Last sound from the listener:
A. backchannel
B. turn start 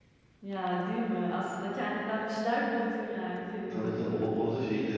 B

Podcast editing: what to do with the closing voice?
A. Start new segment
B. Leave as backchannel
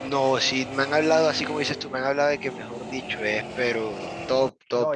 A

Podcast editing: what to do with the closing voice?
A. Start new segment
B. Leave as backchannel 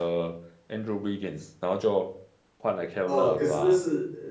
A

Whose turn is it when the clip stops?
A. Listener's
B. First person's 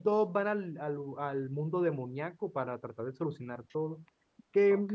B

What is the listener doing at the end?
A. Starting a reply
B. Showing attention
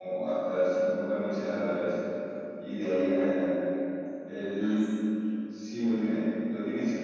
B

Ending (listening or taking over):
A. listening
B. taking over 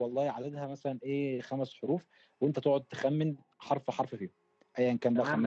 B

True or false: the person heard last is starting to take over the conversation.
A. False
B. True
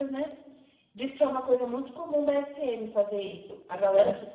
A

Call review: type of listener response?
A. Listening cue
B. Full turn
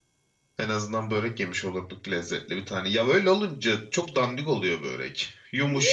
A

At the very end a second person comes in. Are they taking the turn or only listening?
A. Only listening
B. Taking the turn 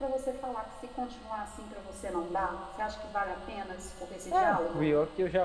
B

